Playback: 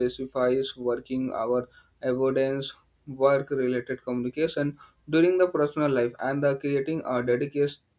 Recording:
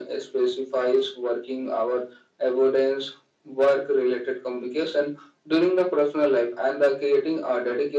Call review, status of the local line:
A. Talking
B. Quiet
B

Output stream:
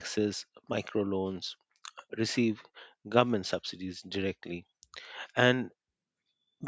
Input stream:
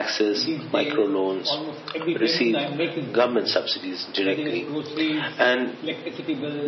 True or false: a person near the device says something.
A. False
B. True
B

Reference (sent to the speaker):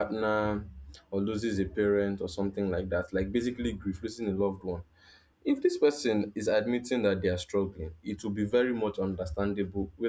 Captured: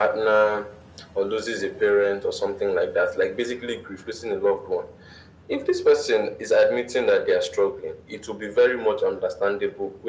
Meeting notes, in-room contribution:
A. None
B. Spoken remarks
A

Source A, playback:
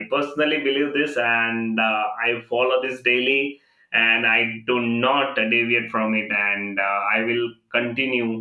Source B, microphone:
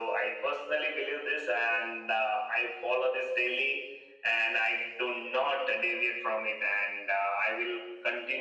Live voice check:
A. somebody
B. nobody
B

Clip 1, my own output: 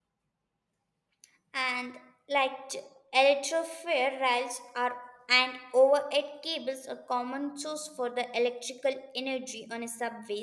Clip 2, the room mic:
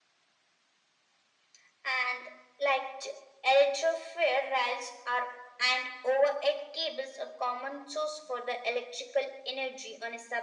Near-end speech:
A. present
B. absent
B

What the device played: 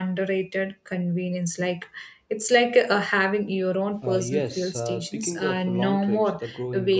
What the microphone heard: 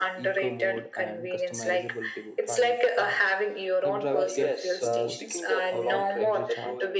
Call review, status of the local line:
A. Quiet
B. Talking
B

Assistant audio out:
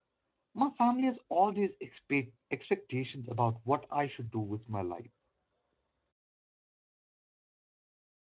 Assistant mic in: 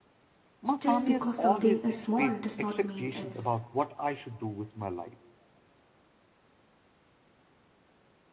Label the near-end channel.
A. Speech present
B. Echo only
A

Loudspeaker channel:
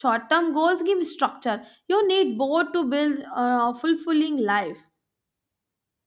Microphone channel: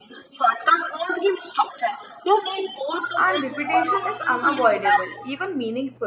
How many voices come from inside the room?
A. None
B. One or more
B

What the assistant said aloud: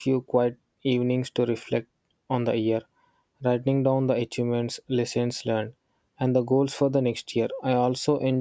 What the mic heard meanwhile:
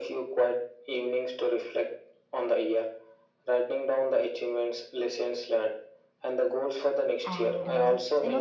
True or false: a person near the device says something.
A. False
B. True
B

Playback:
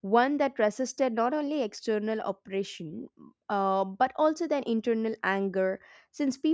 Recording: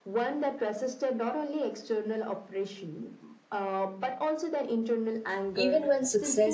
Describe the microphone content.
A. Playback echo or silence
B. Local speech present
B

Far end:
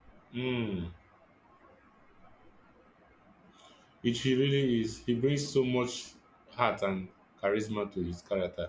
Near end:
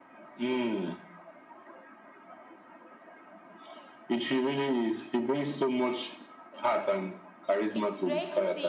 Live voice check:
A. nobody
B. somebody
B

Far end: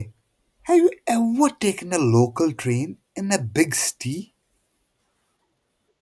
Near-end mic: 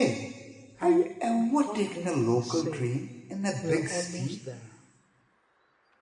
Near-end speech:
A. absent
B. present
B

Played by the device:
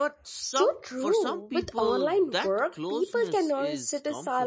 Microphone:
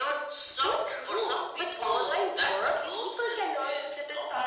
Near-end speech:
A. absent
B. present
A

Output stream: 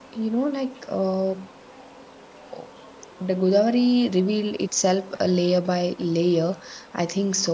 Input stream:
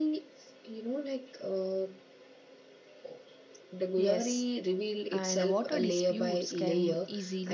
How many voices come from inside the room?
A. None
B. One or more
B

